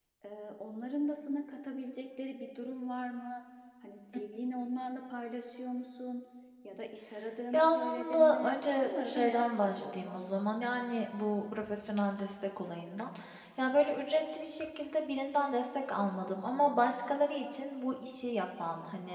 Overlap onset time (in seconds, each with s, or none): 7.5 s